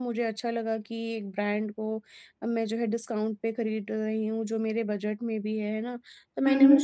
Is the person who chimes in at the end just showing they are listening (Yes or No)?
Yes